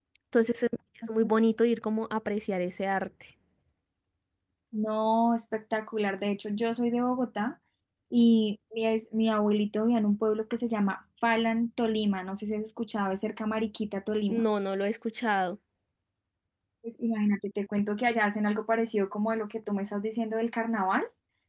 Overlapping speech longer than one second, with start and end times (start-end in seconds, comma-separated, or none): none